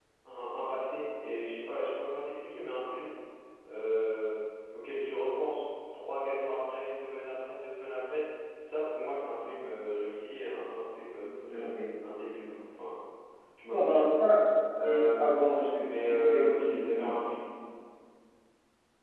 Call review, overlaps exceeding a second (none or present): present